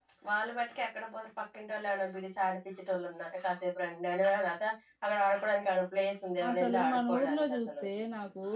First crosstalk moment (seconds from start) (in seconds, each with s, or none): 6.4 s